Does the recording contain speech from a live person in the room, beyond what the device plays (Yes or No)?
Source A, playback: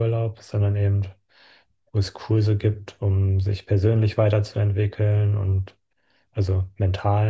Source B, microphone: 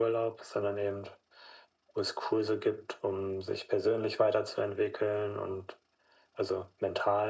No